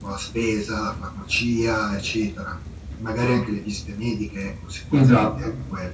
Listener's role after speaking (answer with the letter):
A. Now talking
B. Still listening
A